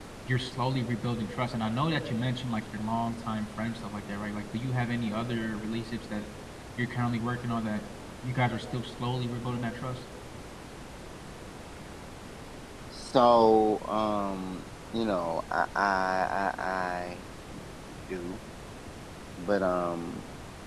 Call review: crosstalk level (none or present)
none